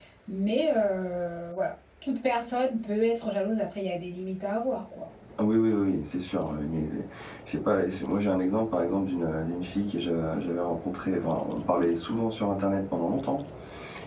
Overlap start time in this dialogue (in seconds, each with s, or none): none